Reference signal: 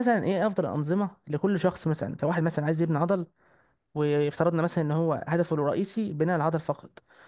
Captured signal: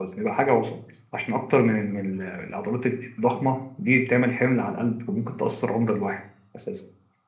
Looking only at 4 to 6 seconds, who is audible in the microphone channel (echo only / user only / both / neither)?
user only